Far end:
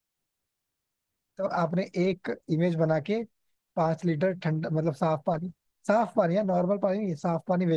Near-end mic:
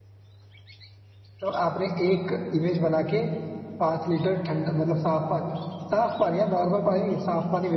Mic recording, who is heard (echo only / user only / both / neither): echo only